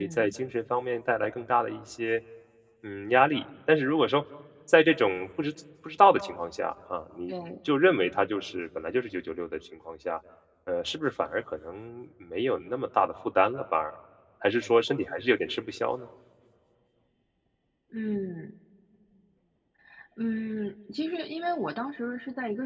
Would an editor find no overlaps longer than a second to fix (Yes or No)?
Yes